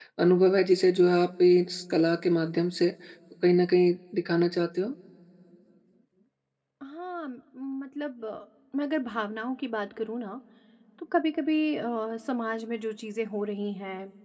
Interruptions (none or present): none